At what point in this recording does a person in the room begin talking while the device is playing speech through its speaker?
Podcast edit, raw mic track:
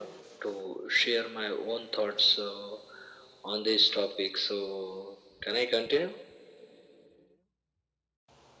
none

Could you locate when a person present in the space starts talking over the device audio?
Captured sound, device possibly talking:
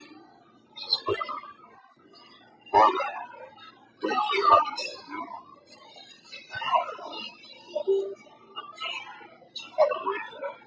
none

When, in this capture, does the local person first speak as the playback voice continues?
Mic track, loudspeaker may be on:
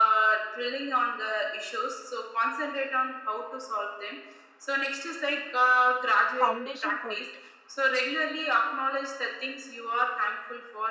6 s

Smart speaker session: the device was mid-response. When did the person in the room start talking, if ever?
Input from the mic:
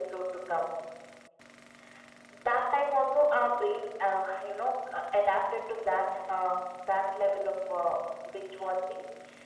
none

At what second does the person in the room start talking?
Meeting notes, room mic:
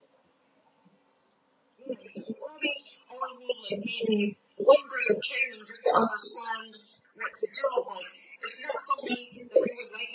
none

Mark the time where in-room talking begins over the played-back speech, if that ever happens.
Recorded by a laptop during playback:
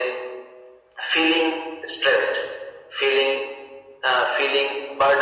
none

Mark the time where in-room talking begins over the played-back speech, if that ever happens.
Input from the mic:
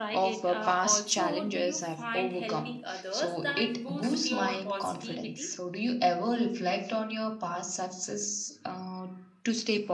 none

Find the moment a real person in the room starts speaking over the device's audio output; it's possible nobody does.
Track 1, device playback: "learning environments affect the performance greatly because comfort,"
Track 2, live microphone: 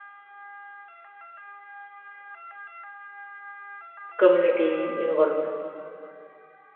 4 s

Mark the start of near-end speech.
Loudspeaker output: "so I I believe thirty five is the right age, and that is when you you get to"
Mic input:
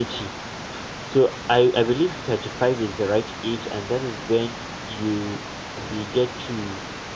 none

